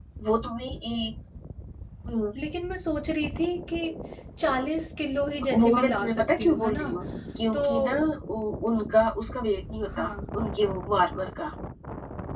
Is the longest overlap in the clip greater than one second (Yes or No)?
Yes